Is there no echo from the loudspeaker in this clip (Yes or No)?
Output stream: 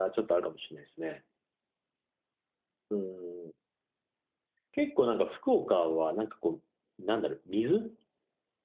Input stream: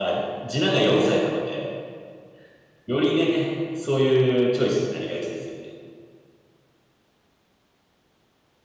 Yes